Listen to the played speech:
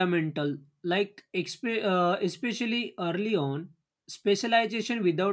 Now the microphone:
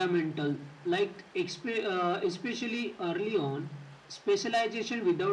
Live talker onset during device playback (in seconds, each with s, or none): none